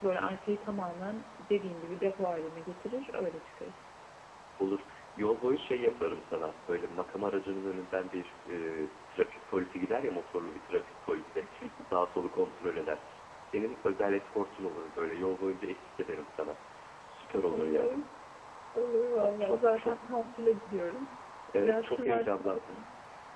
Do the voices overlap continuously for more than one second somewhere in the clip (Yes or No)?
Yes